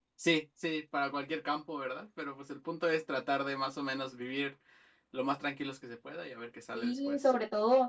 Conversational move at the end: taking over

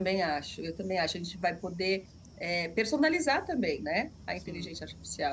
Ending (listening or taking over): listening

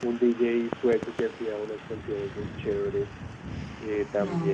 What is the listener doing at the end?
listening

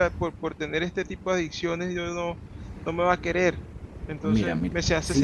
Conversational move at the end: taking over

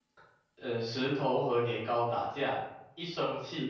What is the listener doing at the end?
listening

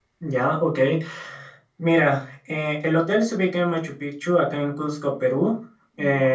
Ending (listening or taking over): listening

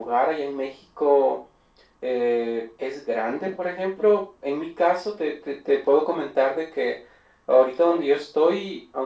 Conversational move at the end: listening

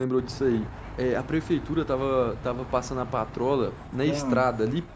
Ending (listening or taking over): listening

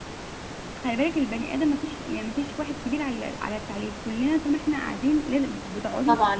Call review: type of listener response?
taking over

